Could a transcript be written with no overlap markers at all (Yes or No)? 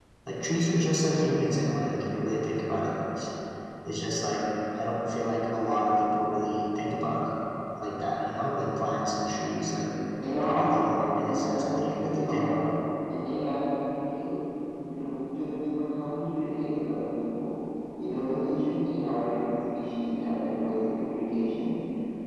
No